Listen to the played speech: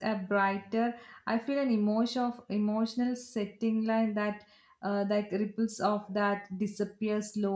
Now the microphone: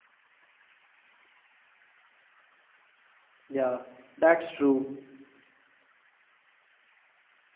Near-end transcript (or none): Yeah, that's true.